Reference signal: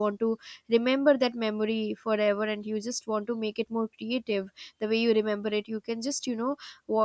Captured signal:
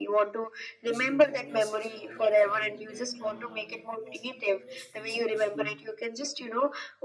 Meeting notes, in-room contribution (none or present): present